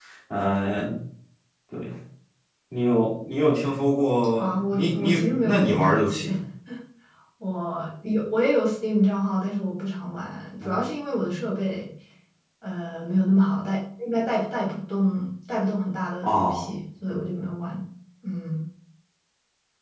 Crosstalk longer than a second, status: present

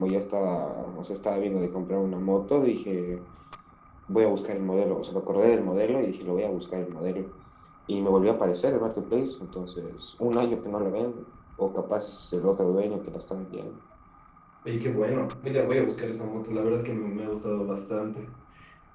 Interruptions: none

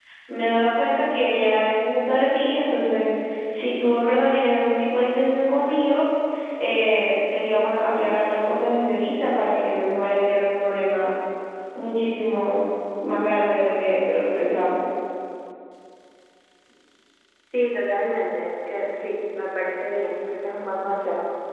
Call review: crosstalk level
none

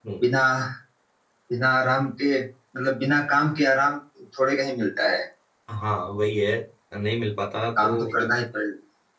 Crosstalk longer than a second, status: none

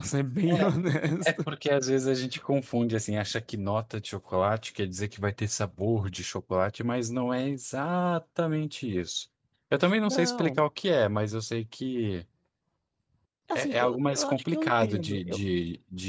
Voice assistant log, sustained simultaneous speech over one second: present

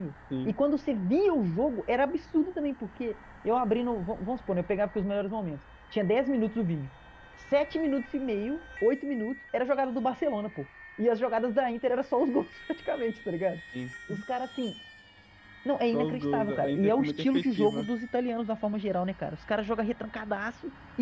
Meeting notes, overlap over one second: present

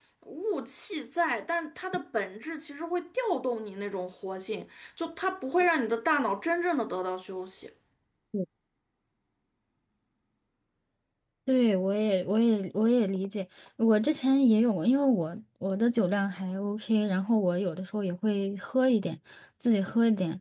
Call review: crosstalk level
none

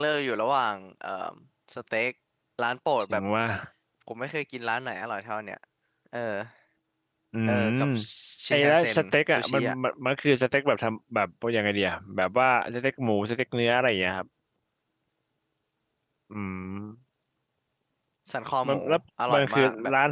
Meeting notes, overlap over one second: present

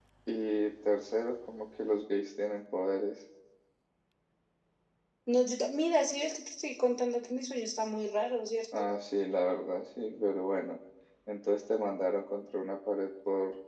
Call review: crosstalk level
none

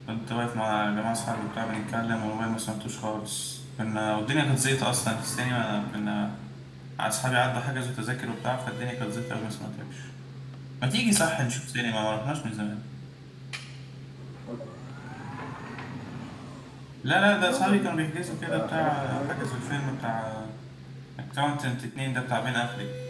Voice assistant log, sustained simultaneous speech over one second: present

